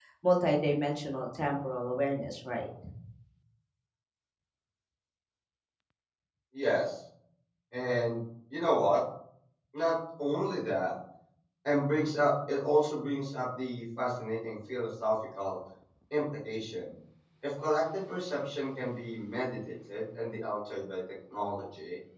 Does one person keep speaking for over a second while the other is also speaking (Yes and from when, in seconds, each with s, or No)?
No